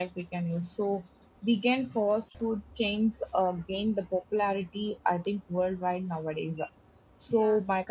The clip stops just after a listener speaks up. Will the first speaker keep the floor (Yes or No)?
Yes